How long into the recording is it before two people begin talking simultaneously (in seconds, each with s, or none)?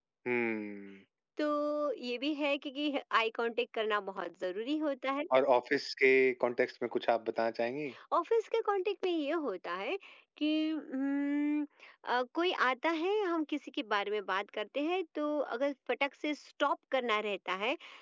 none